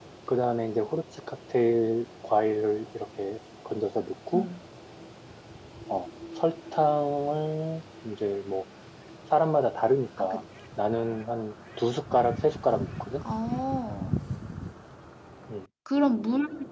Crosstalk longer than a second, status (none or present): none